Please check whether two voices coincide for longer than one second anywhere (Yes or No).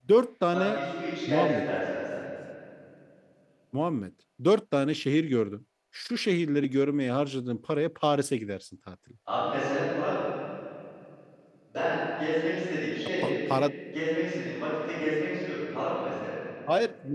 No